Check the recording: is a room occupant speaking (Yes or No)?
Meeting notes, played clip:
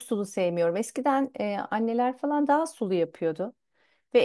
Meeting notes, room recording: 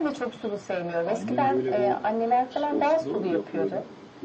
Yes